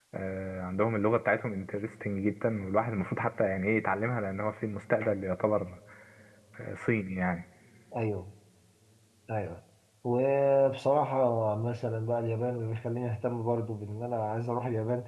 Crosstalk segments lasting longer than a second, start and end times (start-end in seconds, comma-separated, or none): none